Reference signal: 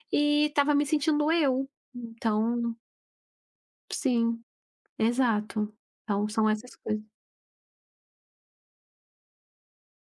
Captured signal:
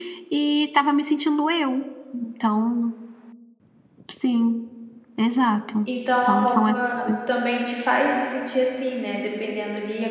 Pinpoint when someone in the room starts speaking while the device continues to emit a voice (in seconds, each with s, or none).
5.8 s